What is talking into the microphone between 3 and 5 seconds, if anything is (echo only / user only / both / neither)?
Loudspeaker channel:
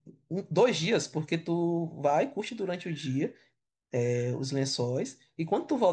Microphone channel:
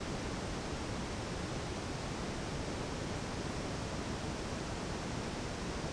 neither